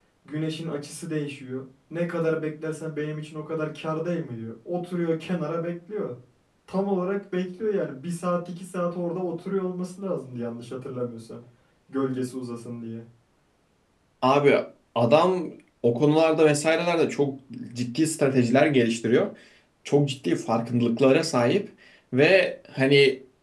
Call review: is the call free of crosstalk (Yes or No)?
Yes